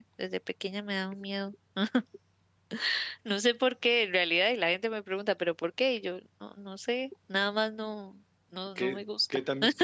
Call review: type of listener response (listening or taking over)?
taking over